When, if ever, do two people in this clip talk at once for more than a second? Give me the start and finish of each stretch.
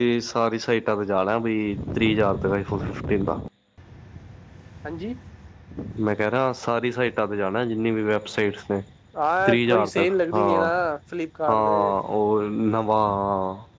9.4-10.7

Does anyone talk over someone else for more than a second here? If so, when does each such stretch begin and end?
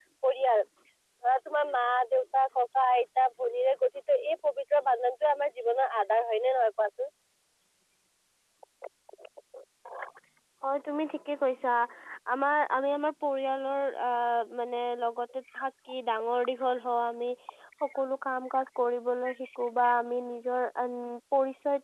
none

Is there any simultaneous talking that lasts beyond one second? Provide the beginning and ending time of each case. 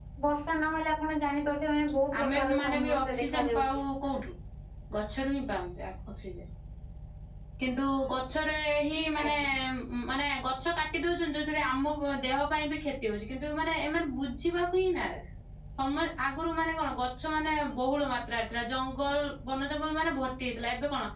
2.2-3.8

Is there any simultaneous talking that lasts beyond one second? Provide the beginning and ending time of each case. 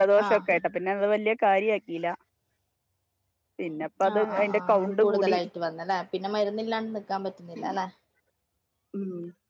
4.1-5.3

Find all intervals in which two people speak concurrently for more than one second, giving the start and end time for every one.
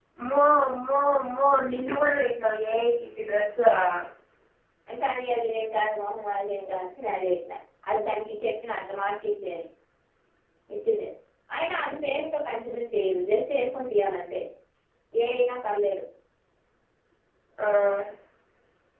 none

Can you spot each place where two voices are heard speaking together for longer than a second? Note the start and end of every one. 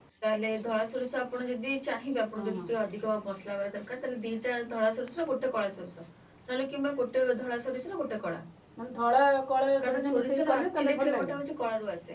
10.0-11.3

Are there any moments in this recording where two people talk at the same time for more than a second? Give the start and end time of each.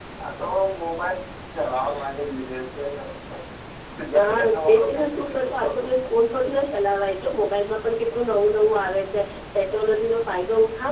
4.2-5.8

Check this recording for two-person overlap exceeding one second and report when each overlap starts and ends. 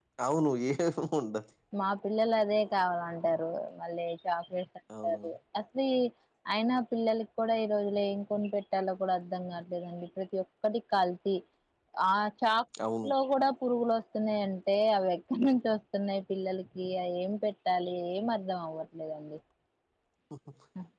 none

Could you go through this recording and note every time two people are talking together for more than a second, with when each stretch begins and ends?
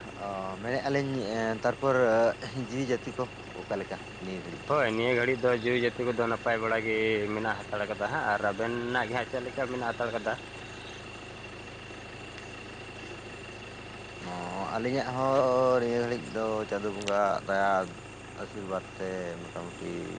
none

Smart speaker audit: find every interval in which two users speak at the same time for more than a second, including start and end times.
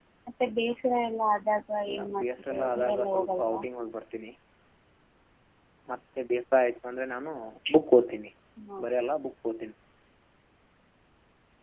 1.9-3.6

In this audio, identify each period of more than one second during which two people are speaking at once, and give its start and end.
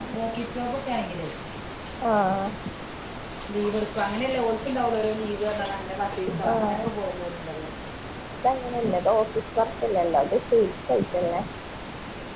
none

